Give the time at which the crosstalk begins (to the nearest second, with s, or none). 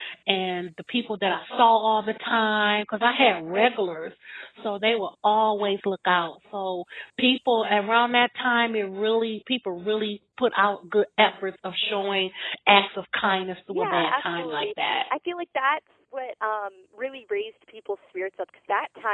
14 s